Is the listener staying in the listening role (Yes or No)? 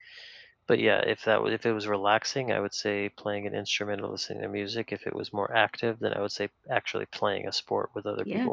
No